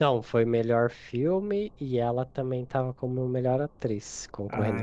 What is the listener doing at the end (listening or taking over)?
taking over